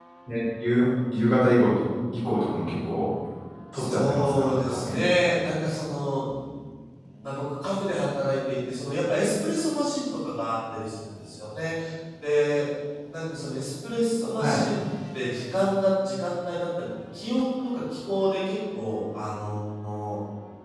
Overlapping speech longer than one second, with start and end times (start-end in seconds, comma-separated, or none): 3.7-5.1